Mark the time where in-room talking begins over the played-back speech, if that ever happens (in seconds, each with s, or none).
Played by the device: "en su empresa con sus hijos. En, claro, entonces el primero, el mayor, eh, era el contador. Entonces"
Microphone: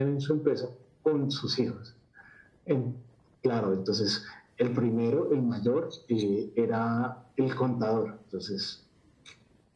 none